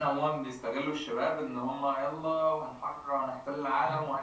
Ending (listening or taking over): listening